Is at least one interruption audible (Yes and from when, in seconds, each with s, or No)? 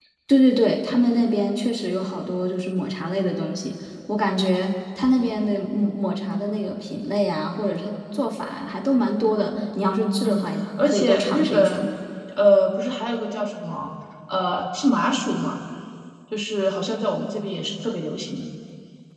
Yes, from 10.2 s